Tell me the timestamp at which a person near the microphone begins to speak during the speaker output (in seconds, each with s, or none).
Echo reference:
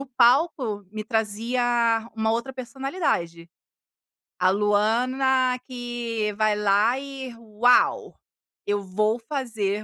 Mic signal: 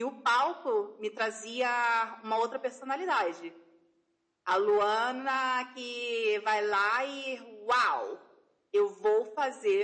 none